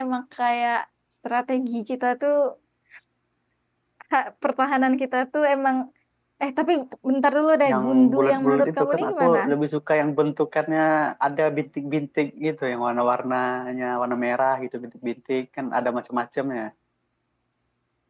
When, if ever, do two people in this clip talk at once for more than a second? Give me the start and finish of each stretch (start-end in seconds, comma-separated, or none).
7.7-9.4